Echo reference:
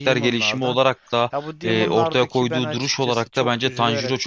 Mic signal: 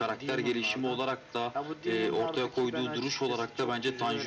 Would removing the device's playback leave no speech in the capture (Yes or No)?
Yes